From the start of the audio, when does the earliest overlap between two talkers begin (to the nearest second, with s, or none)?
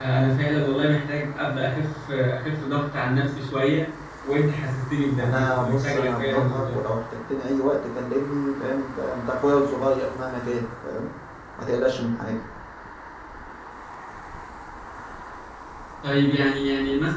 5 s